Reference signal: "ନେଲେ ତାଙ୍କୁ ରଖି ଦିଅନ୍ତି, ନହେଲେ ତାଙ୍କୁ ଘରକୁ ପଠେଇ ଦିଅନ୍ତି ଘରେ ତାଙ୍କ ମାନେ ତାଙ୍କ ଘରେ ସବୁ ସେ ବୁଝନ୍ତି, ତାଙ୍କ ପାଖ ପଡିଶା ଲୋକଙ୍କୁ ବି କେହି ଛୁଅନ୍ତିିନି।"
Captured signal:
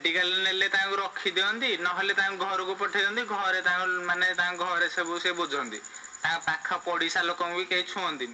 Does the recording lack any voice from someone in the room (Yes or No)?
Yes